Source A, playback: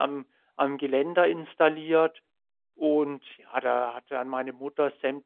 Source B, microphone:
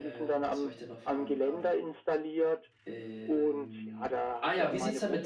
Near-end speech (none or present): present